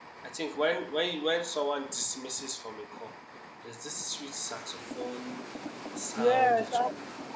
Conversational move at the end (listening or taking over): taking over